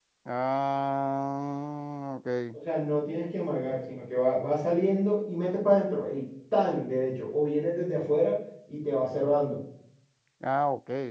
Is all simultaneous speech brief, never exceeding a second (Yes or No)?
Yes